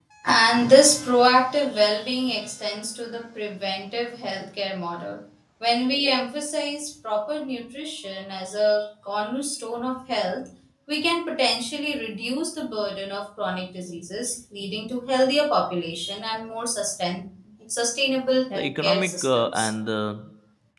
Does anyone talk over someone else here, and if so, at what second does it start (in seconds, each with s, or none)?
18.5 s